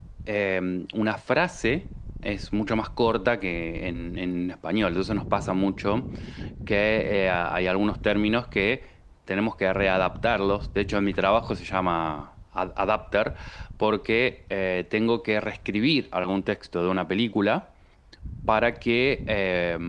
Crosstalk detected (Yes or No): No